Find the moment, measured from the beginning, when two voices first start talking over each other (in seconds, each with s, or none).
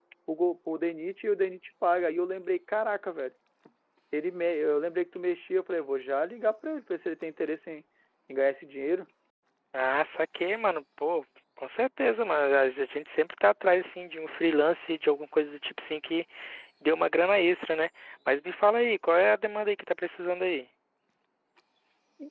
none